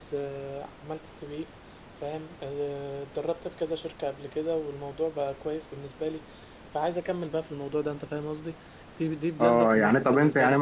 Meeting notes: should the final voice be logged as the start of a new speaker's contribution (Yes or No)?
Yes